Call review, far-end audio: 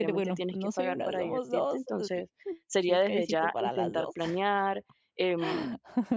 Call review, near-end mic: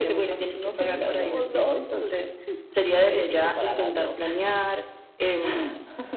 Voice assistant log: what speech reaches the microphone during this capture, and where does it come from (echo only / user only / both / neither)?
echo only